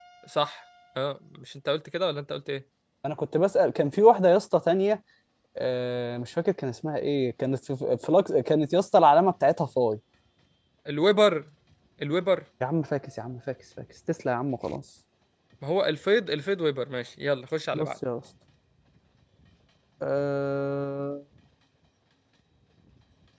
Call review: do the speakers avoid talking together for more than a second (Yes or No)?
Yes